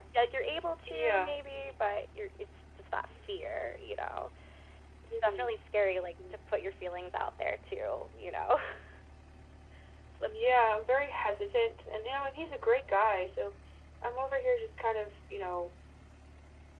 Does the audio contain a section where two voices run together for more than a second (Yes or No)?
No